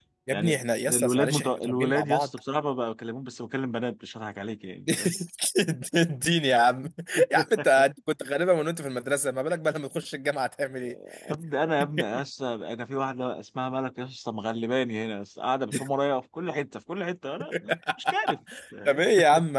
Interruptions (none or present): present